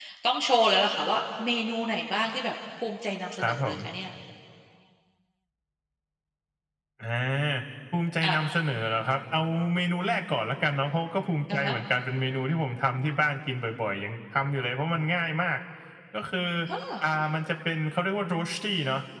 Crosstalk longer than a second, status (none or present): none